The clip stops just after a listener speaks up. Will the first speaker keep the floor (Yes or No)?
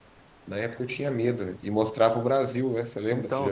No